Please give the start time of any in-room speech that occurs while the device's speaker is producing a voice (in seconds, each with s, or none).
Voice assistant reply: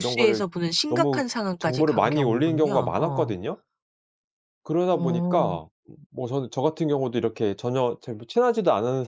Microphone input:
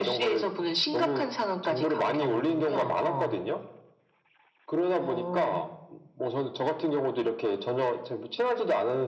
none